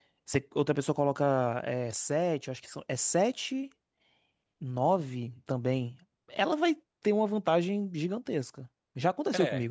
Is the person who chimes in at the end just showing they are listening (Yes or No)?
No